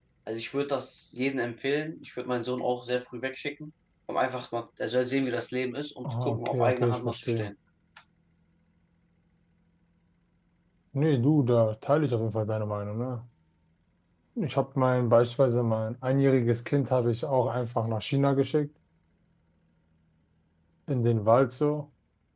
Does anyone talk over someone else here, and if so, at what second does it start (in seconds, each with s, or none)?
6.0 s